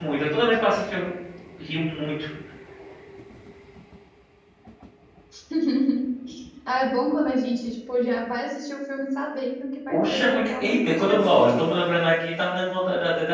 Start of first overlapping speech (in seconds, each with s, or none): 9.9 s